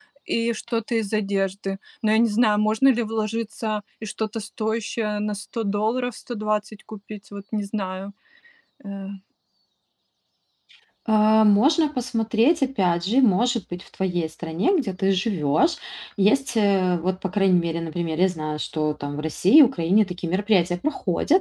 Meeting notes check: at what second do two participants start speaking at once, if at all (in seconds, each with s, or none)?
none